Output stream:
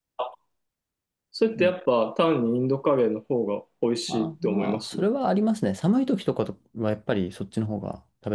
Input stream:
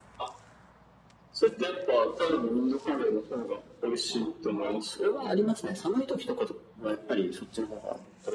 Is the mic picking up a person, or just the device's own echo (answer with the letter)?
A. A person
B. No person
B